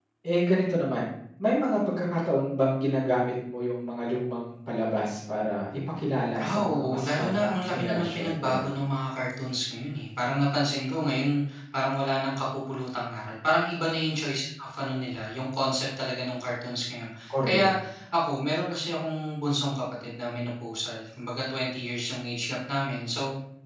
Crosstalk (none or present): present